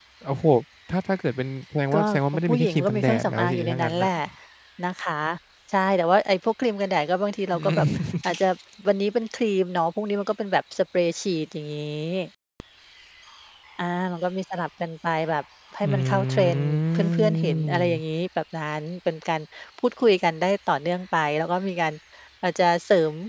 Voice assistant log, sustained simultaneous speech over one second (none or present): present